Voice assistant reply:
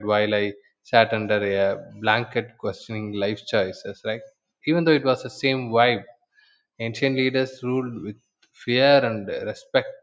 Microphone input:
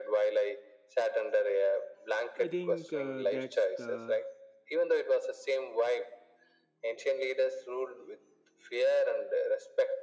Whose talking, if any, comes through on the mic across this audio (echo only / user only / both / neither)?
both